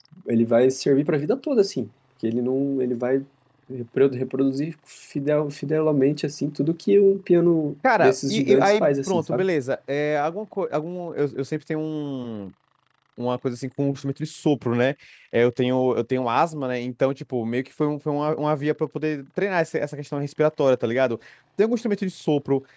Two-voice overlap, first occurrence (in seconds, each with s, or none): 7.8 s